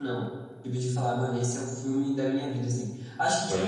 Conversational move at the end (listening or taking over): listening